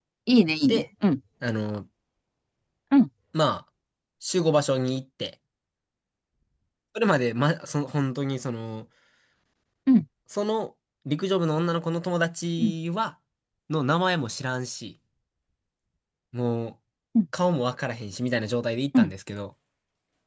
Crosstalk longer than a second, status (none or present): none